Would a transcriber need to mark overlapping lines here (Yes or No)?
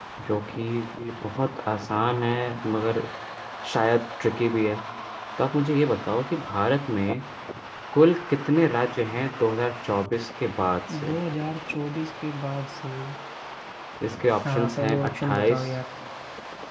Yes